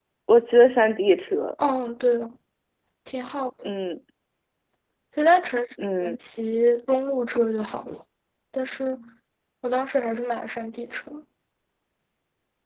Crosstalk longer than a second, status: none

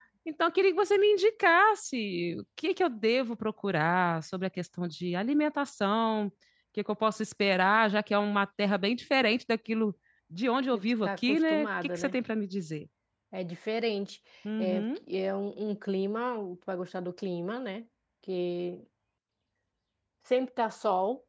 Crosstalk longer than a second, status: present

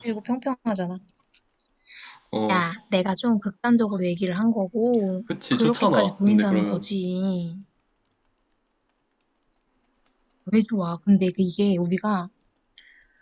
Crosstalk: present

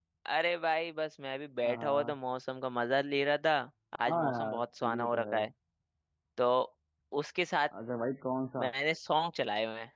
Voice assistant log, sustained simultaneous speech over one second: present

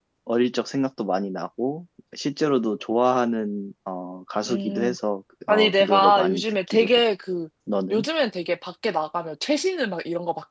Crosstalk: present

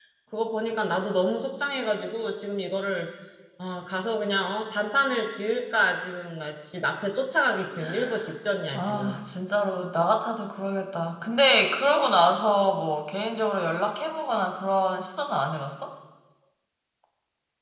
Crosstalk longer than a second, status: none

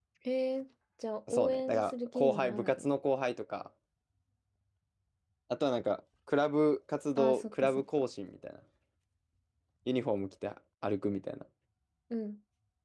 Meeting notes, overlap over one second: present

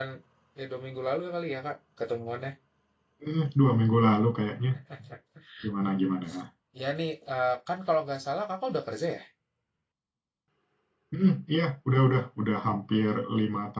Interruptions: none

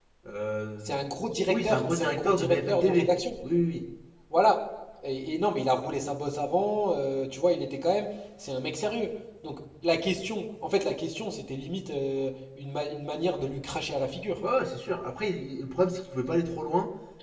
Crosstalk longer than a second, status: present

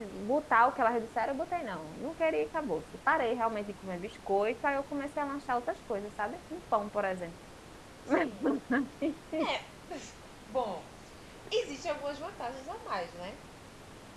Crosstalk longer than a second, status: none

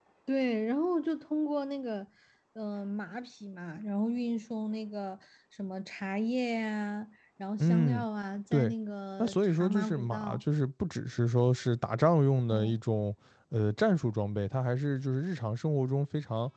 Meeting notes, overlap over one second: present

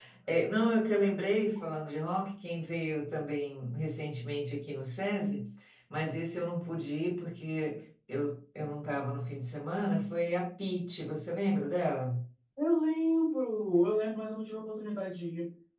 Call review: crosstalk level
none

